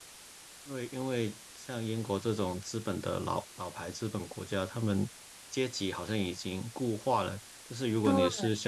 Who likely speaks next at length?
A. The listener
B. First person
B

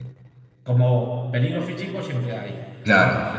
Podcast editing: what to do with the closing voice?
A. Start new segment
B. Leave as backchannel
B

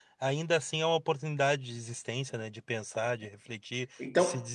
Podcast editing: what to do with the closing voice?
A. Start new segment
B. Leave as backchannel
B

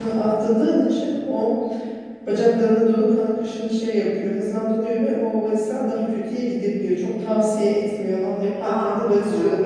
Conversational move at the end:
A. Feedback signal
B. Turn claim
A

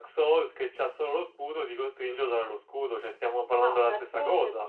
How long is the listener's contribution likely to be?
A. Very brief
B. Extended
B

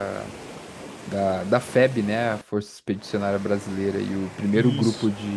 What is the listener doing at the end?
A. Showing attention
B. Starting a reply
A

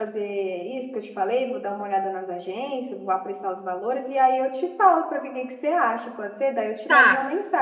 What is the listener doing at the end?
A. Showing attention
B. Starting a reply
B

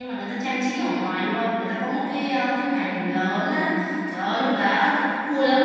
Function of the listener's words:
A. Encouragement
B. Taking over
A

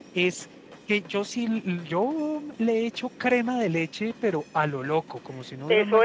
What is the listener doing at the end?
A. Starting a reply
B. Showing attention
A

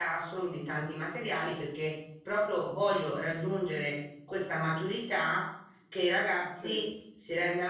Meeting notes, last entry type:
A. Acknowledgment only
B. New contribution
A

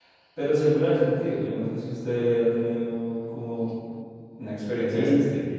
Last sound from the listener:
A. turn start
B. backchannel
A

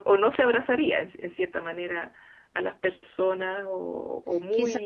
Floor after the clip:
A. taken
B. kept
A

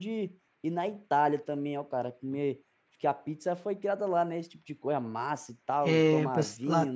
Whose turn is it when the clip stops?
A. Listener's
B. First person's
A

